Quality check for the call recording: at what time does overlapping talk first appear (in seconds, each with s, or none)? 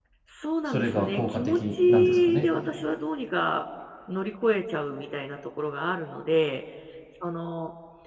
0.7 s